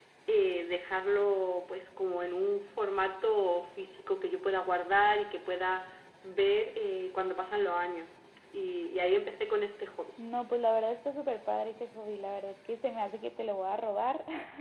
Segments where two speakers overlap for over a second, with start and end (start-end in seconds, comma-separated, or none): none